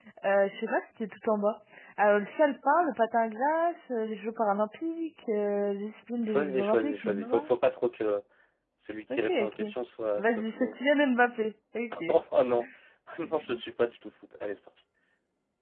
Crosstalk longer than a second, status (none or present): present